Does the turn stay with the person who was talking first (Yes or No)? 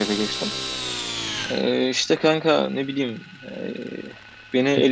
Yes